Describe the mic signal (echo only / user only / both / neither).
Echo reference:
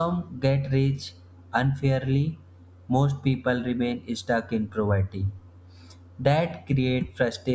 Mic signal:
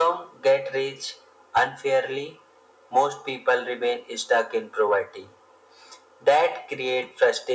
echo only